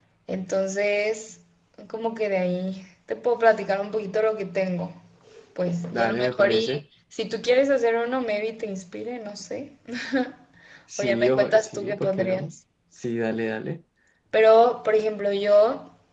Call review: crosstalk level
present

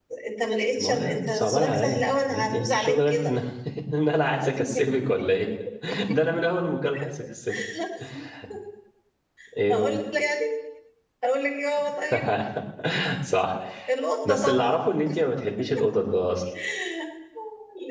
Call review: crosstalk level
present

